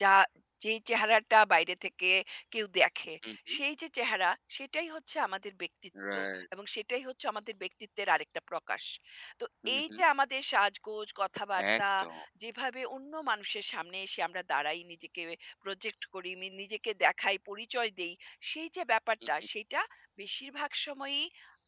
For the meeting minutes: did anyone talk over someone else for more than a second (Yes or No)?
No